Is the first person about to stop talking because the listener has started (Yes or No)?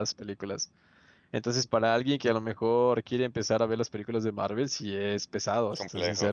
Yes